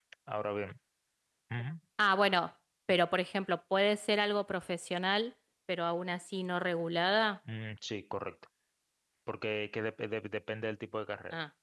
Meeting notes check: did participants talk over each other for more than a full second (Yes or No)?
No